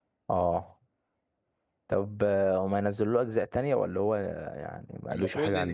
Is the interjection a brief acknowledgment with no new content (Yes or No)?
No